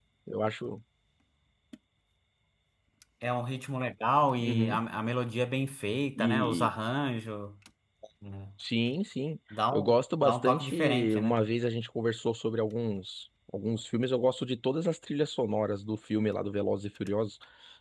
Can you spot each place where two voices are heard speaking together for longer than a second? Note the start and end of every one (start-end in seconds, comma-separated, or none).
9.7-11.3